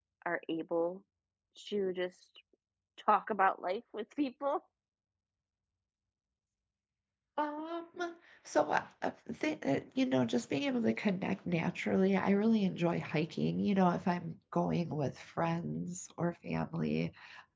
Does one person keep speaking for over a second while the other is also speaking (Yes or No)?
No